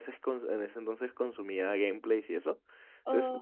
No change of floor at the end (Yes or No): Yes